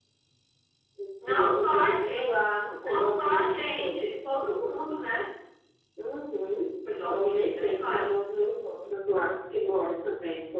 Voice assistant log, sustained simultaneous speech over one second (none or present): present